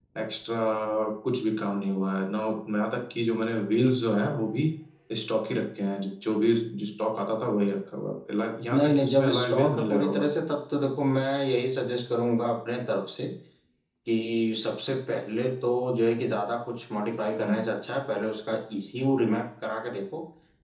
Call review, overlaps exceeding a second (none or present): present